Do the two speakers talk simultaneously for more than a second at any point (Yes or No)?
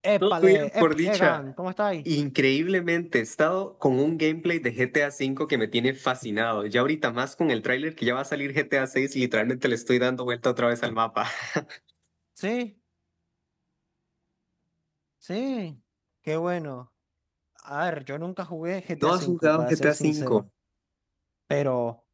Yes